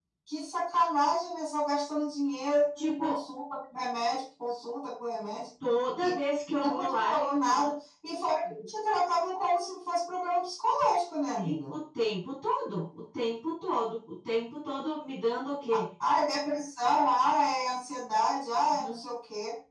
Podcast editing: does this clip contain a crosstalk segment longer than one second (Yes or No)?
Yes